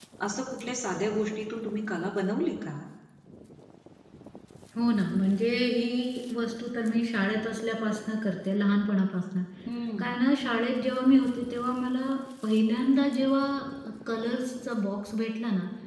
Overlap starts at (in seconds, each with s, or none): none